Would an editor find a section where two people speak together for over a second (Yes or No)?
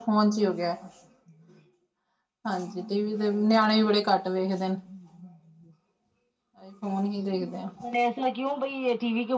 No